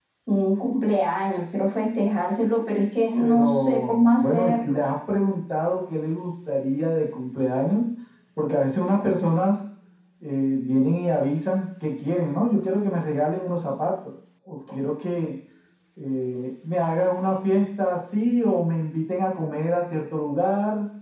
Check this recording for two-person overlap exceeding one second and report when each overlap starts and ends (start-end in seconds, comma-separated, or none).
3.2-4.8